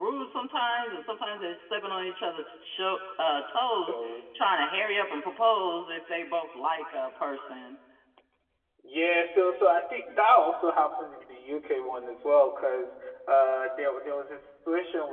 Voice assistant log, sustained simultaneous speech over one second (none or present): none